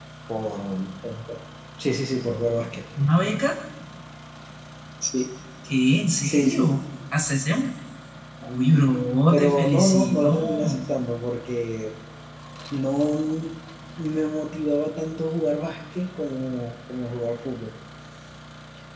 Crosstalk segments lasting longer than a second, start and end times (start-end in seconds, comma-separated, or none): 9.3-10.8